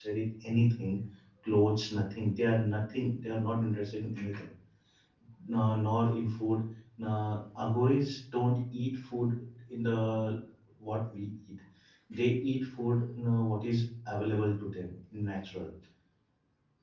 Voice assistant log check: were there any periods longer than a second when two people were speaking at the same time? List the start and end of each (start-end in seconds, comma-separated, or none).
none